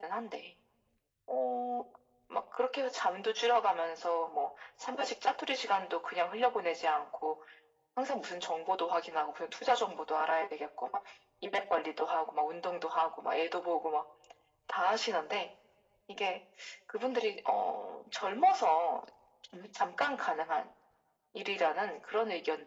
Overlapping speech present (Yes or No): No